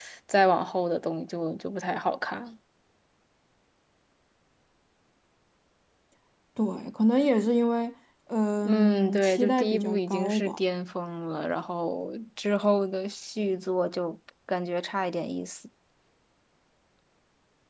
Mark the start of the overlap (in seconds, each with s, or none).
8.7 s